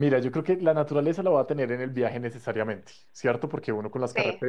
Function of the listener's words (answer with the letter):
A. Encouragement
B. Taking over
A